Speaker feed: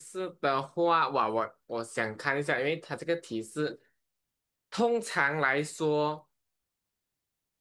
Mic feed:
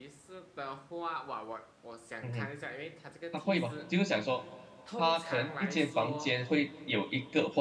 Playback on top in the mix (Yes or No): No